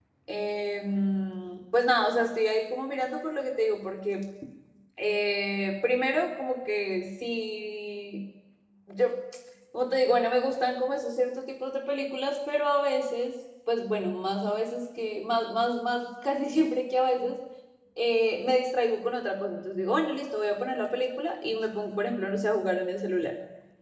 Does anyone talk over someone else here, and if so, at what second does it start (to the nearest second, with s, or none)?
none